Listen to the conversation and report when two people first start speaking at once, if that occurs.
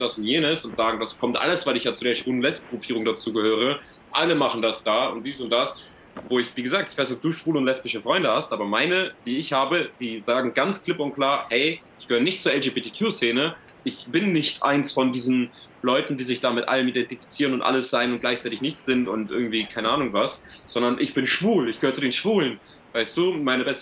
none

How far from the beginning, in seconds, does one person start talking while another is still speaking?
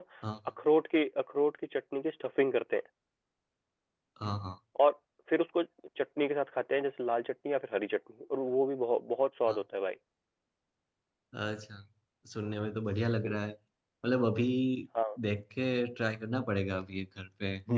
none

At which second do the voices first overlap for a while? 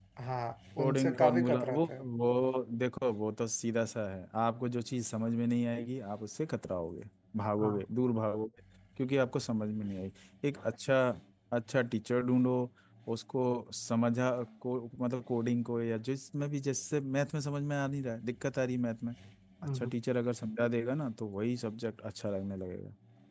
1 s

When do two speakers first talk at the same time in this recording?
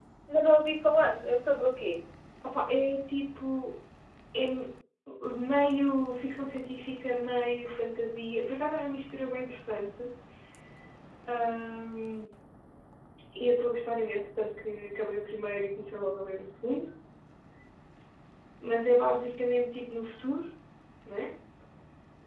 none

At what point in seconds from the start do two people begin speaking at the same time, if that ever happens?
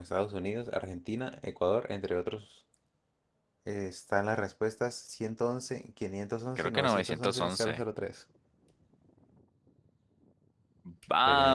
7 s

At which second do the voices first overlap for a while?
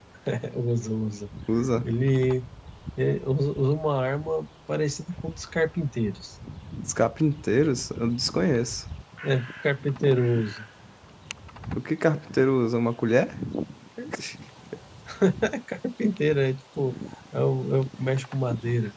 none

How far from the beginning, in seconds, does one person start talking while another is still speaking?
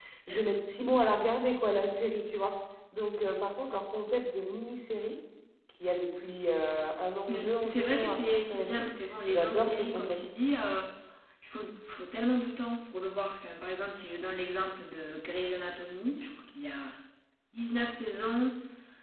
7 s

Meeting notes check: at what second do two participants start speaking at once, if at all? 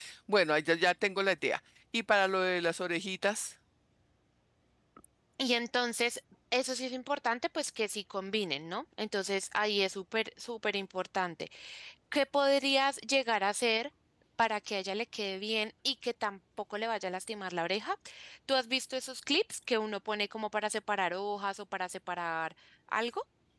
none

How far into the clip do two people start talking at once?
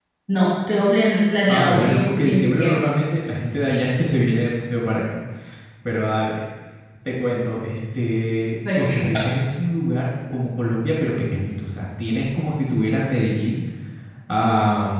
1 s

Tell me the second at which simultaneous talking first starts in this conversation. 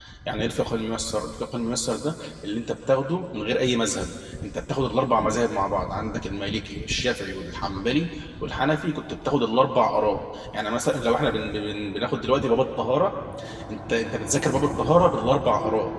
none

